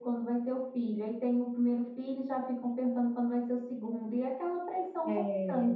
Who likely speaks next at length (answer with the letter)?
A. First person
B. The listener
B